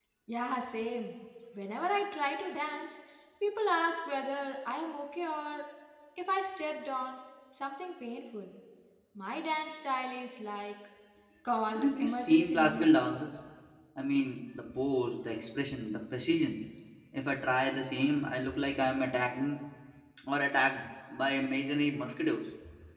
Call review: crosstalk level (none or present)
present